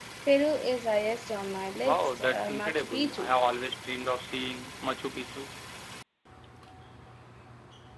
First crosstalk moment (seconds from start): 1.8 s

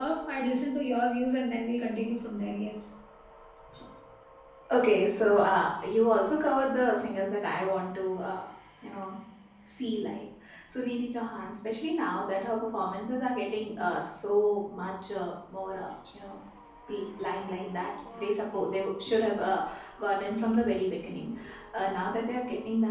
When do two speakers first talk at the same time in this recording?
none

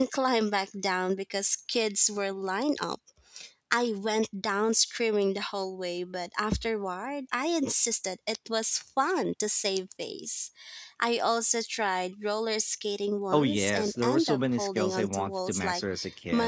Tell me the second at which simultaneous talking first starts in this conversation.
13.3 s

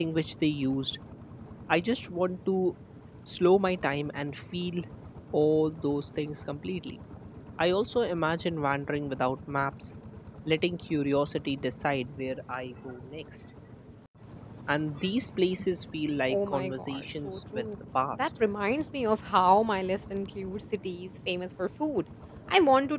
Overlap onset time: 16.3 s

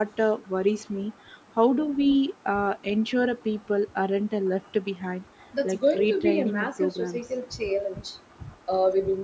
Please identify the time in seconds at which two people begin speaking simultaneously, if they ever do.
5.6 s

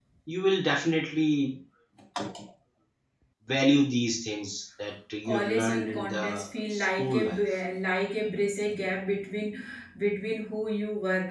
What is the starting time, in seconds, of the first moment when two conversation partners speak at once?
5.2 s

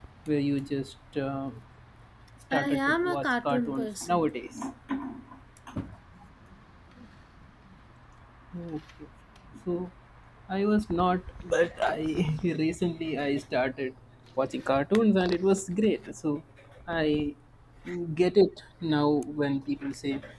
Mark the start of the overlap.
2.5 s

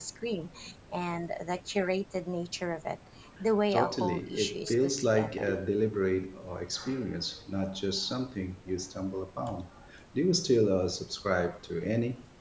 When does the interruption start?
3.7 s

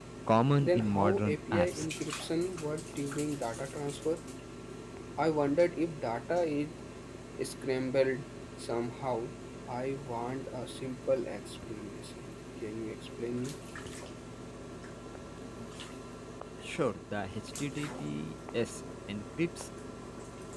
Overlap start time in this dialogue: 0.6 s

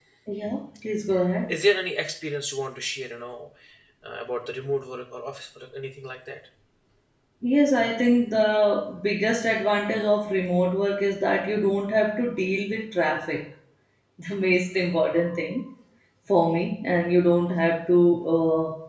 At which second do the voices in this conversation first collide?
none

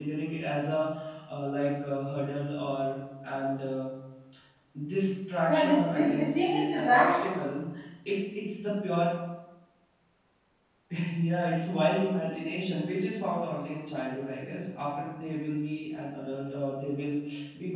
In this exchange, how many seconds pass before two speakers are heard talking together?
5.5 s

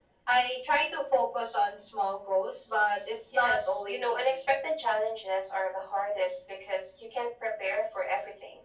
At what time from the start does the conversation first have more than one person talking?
3.3 s

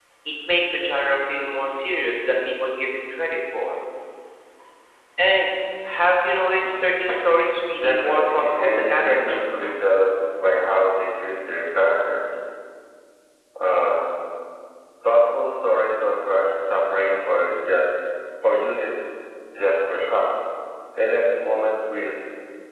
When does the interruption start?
7.7 s

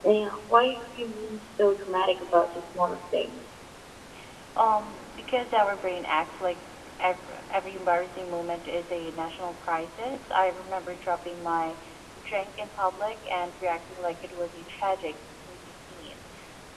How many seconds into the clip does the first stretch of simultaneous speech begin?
none

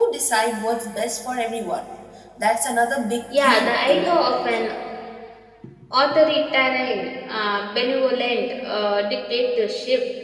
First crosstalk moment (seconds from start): 3.3 s

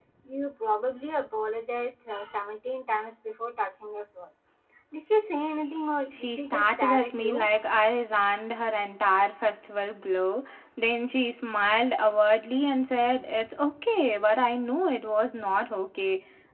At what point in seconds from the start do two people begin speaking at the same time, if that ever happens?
6.1 s

